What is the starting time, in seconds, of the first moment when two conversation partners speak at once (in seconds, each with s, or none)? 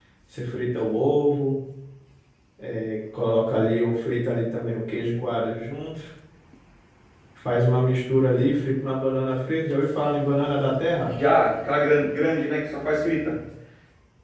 none